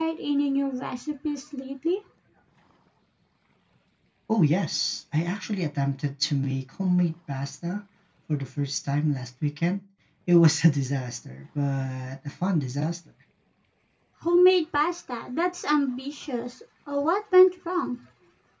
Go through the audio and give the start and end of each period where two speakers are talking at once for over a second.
none

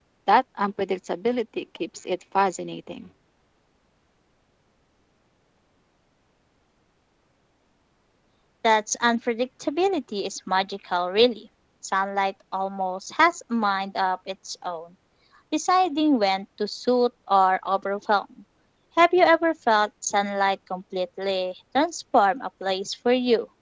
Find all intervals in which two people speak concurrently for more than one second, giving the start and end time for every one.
none

